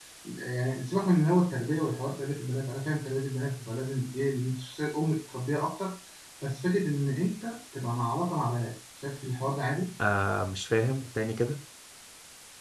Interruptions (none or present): none